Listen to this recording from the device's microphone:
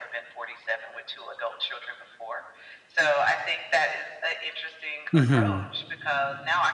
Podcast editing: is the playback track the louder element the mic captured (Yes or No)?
No